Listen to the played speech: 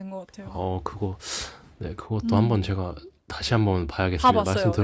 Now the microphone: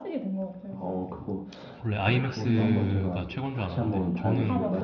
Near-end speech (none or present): present